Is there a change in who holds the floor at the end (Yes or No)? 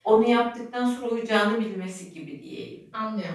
Yes